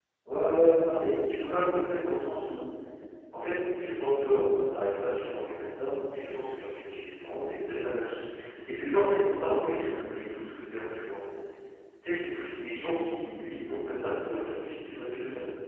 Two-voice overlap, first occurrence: none

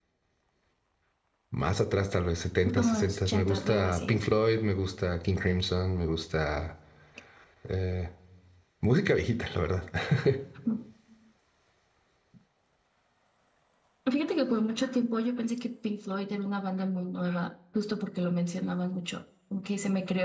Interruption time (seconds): 2.6 s

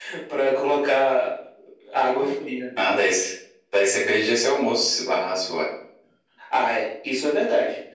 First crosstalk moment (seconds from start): none

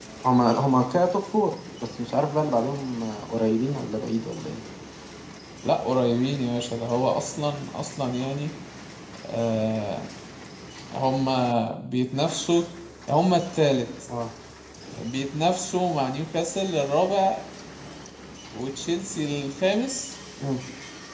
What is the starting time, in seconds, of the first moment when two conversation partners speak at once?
none

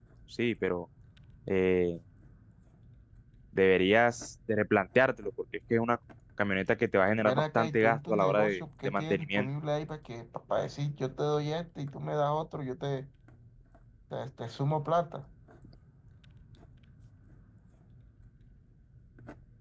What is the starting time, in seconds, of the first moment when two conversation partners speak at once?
7.2 s

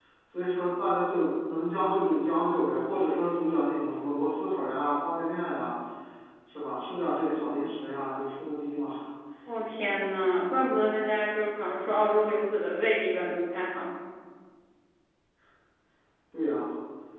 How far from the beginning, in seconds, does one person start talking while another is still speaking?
none

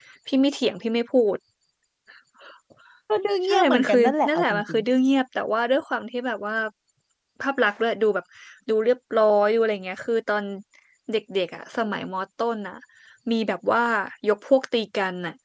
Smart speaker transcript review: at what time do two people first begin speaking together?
3.5 s

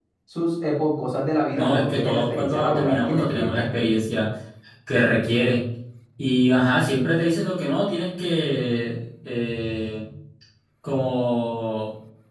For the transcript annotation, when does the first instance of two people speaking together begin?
1.5 s

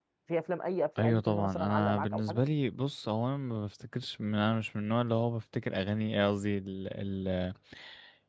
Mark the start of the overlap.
1.0 s

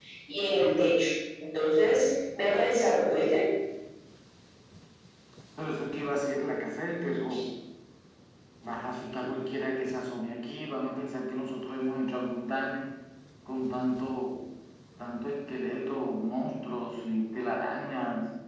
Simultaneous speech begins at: none

